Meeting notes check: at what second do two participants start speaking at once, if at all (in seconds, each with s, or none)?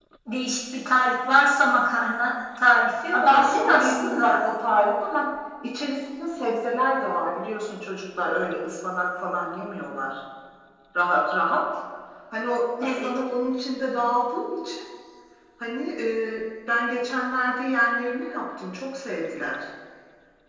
3.1 s